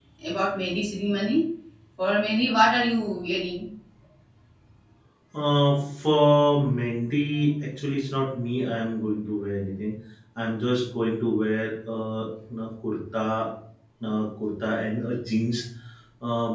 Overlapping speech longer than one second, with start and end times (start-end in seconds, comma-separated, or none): none